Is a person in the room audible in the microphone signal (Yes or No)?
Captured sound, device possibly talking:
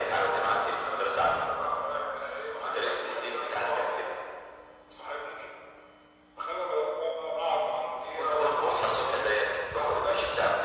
No